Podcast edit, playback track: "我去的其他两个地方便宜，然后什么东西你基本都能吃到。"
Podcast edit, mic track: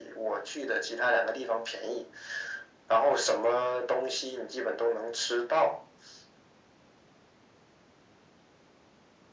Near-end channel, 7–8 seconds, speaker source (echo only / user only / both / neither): neither